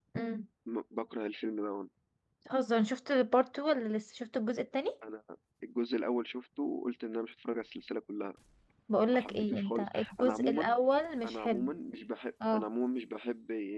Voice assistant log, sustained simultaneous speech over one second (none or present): present